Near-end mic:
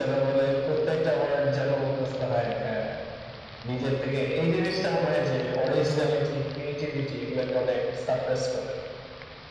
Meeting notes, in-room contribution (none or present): none